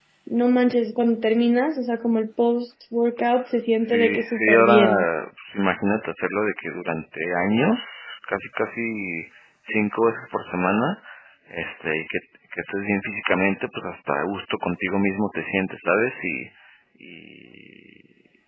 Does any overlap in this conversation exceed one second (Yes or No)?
Yes